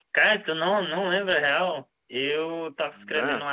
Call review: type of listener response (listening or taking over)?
listening